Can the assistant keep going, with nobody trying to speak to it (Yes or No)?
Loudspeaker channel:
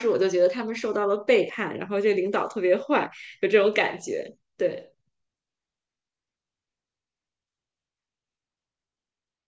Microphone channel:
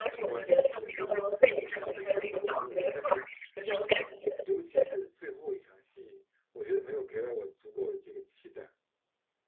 No